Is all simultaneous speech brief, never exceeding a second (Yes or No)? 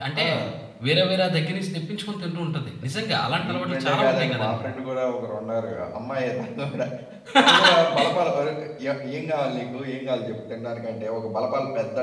No